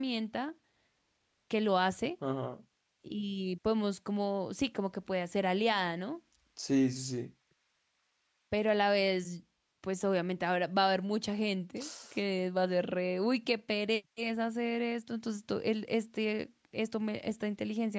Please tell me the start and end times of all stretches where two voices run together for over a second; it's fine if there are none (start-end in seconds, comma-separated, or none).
none